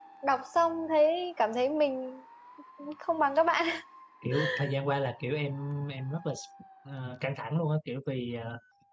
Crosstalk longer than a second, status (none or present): none